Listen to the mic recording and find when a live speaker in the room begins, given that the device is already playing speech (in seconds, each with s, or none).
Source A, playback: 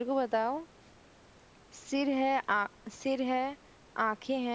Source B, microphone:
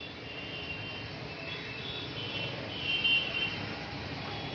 none